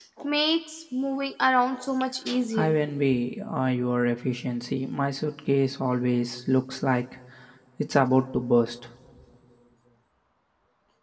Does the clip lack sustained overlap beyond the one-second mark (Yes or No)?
Yes